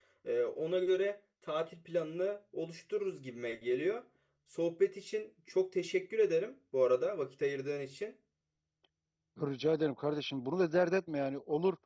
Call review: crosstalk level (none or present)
none